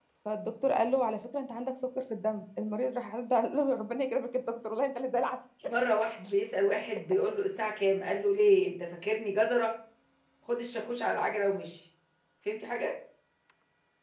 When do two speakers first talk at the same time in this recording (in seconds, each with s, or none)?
none